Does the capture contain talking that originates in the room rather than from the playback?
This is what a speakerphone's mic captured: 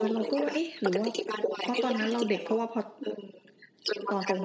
Yes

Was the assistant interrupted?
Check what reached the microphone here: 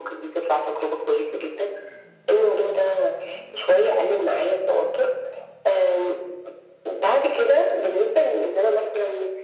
No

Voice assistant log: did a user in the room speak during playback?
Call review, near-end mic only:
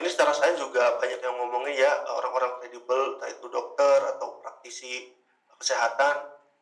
No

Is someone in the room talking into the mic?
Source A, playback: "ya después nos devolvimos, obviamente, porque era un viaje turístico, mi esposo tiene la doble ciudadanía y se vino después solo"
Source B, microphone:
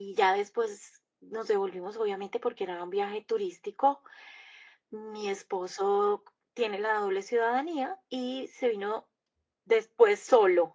No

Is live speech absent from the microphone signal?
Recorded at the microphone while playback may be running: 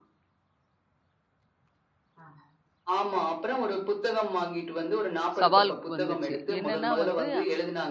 No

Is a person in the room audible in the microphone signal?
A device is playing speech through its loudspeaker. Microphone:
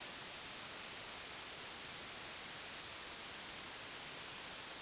No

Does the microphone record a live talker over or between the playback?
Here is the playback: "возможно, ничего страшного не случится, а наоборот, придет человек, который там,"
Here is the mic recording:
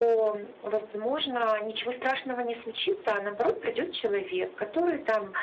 No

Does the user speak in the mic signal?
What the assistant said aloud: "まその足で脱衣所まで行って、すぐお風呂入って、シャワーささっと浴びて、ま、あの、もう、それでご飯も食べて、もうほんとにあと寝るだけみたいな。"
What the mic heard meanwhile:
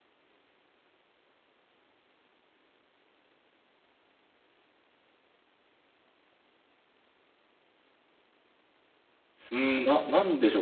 Yes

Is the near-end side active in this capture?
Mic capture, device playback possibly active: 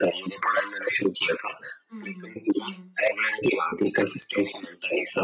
Yes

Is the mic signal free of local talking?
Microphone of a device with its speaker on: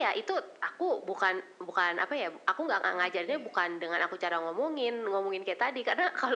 No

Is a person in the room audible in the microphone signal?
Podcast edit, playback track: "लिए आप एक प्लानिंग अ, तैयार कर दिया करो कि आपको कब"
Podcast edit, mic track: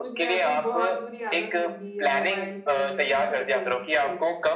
Yes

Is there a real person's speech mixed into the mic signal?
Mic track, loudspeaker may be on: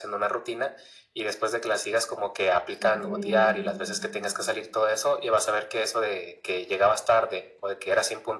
Yes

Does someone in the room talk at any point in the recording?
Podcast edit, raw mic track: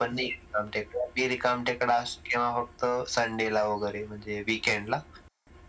No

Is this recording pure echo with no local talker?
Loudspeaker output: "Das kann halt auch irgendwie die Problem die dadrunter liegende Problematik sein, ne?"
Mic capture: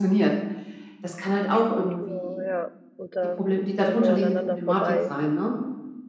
No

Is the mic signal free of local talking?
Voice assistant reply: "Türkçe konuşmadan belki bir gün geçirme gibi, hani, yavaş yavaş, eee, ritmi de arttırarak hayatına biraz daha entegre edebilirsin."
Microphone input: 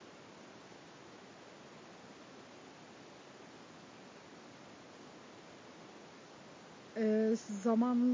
No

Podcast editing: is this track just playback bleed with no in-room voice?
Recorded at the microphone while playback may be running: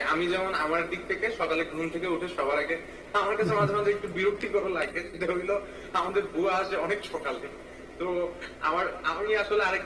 No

